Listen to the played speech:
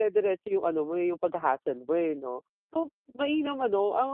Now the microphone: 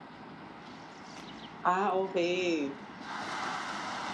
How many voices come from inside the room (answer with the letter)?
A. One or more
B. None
A